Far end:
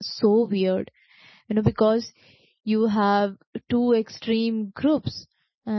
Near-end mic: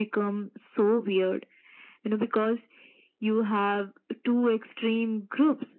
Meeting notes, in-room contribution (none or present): none